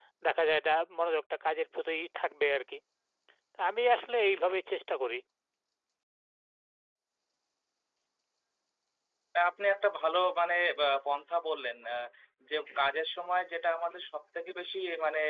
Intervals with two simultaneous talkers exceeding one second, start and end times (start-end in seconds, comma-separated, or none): none